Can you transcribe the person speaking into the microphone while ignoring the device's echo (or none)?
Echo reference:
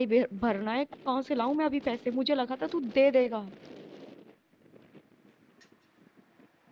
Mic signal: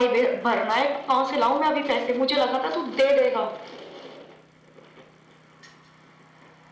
none